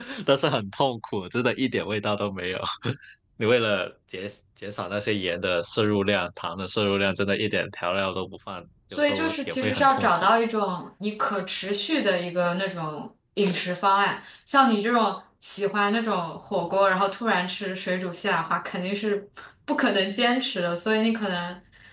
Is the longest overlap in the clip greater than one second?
Yes, from 8.9 s

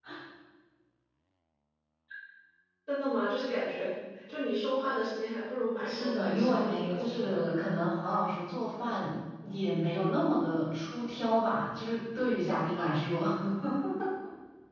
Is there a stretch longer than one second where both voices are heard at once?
Yes, from 5.8 s

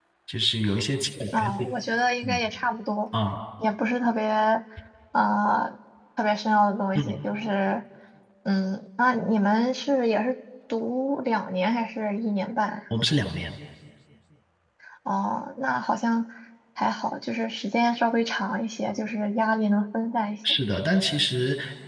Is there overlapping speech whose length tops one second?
No

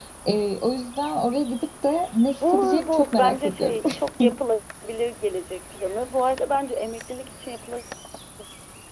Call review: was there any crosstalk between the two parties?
Yes, from 2.4 s

